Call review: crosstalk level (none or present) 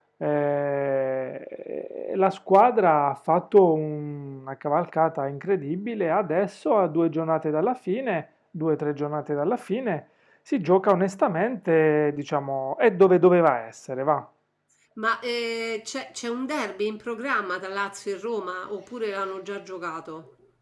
none